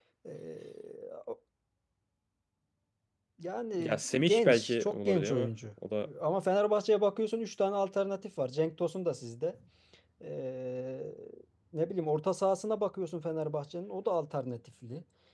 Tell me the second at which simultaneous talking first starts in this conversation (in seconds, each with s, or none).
3.8 s